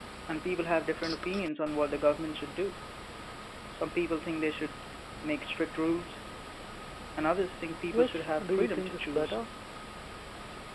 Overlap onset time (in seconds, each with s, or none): 7.9 s